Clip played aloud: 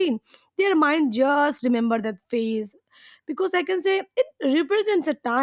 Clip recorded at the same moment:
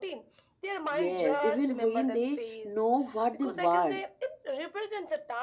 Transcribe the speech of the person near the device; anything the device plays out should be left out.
yes even when they know what they want

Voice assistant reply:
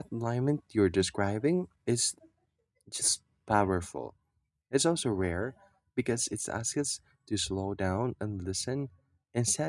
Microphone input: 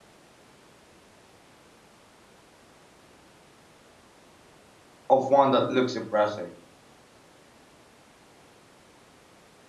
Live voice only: of one that looks impressive.

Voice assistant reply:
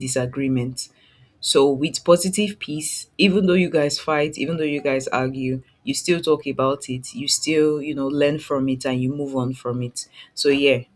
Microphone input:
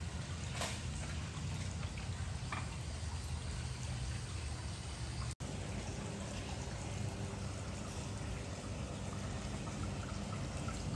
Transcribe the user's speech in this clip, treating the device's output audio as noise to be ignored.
none

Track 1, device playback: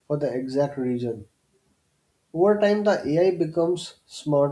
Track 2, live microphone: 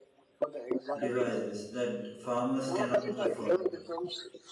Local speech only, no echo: devices that farmers cannot afford.

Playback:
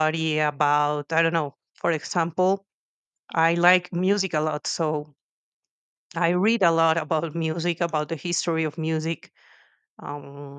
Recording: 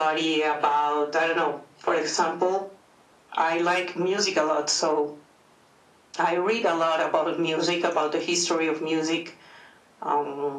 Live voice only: none

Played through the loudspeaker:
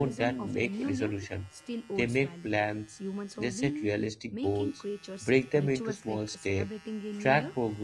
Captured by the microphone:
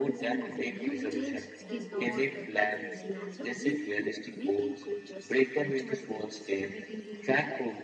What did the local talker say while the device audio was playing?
change does not uh, come from the calendar

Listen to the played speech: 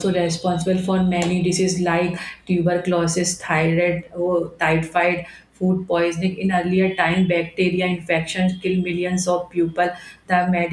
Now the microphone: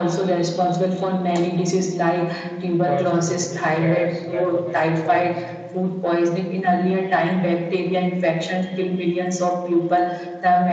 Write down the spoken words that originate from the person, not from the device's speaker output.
fast food, stress, lack of exercise,

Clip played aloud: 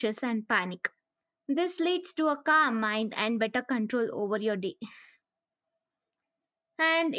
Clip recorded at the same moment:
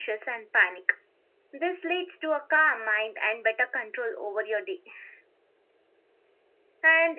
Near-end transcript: none

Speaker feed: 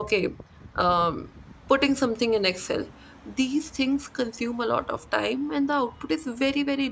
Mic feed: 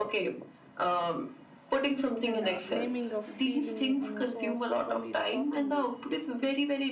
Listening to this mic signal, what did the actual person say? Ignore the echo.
and uh, naming a feeling on a so often it softens it it's-

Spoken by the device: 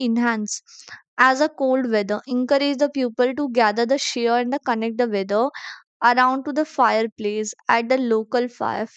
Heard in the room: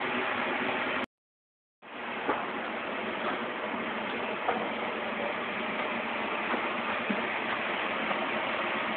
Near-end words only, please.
none

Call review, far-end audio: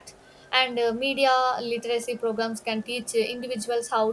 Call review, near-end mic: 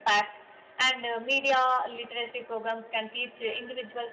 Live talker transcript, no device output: none

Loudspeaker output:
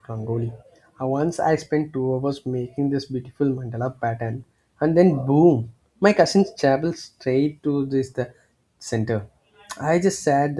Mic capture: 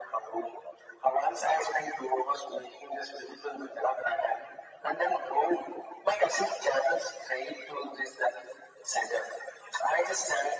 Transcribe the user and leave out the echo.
none

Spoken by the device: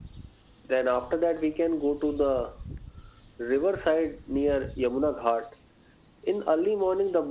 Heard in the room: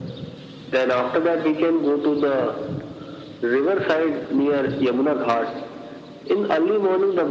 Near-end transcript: none

